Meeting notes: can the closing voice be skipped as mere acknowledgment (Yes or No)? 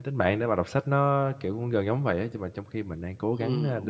No